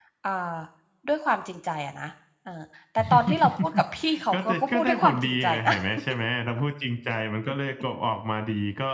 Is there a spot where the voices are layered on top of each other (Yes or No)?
Yes